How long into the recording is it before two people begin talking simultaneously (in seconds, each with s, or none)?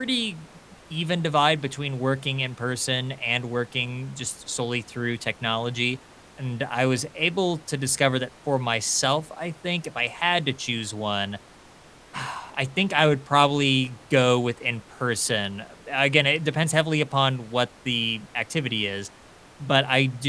none